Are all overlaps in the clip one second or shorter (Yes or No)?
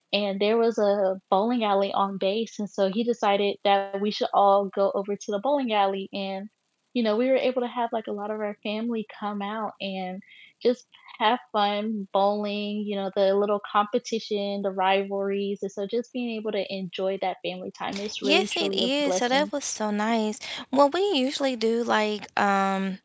No